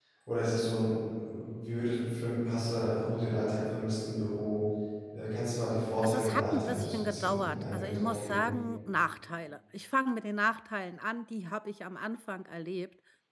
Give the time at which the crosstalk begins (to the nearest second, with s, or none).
6 s